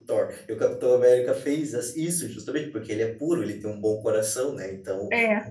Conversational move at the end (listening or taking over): listening